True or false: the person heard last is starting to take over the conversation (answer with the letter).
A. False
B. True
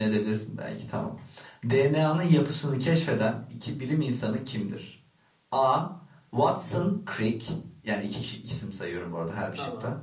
A